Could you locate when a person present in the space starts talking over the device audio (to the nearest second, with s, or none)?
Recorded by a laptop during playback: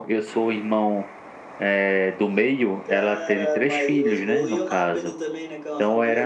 3 s